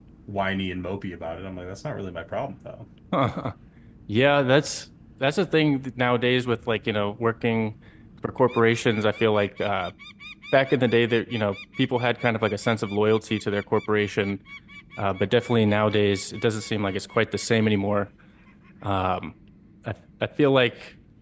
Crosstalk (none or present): none